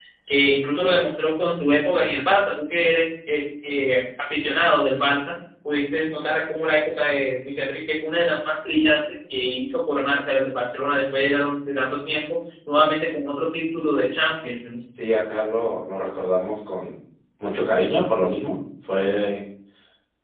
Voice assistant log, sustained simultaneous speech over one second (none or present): none